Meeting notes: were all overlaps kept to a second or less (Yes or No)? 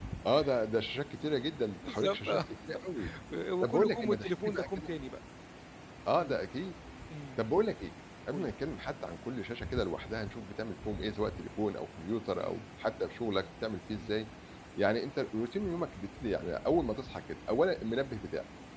No